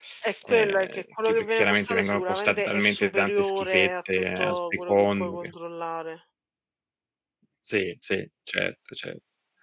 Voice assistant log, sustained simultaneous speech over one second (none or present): present